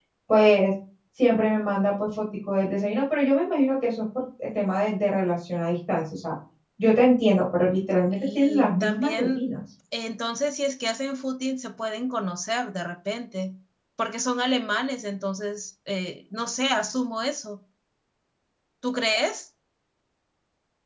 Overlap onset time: 8.0 s

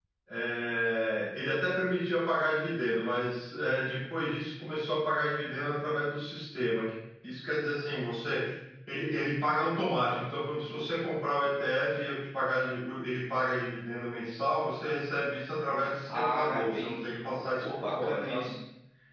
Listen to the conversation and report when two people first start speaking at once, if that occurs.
16.1 s

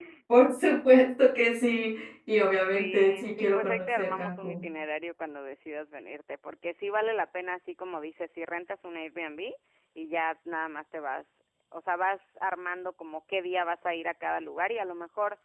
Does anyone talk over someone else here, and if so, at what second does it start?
2.7 s

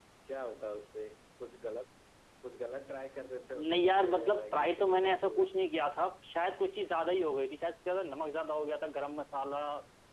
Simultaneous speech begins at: 3.4 s

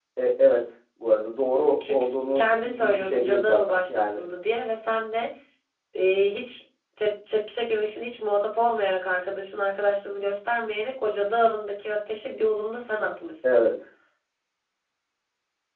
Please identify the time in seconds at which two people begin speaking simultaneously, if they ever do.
1.8 s

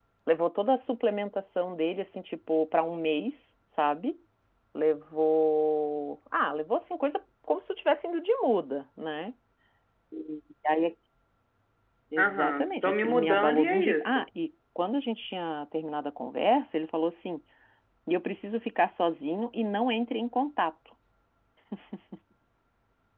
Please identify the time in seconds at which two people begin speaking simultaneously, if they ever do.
12.2 s

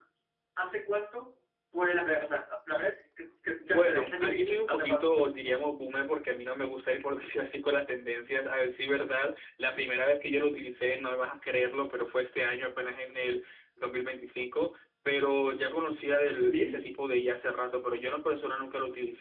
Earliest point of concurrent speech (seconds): 3.7 s

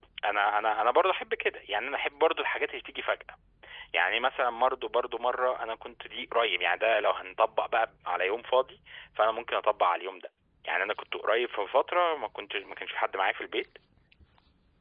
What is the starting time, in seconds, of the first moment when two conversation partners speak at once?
none

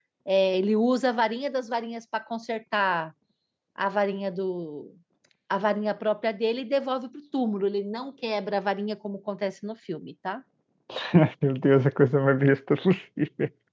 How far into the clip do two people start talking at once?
none

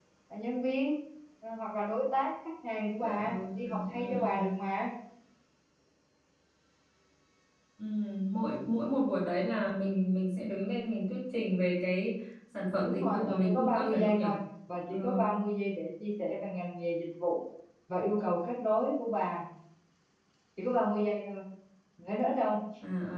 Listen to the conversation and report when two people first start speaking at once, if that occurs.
3.0 s

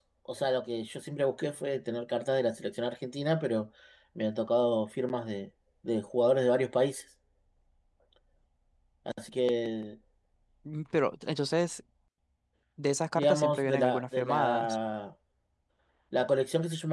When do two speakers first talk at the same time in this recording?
13.2 s

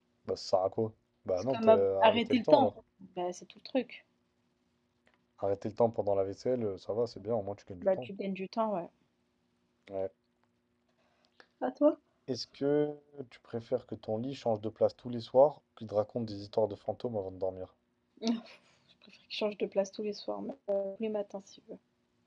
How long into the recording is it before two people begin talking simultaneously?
1.5 s

